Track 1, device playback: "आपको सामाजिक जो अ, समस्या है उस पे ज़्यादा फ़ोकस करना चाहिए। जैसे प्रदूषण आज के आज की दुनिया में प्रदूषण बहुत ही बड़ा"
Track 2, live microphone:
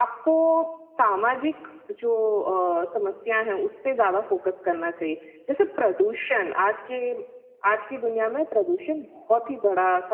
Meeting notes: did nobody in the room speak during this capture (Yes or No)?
Yes